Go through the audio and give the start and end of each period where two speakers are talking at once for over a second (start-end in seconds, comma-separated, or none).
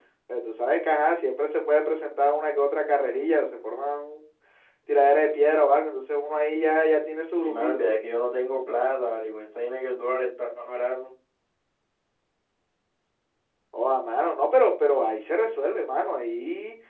none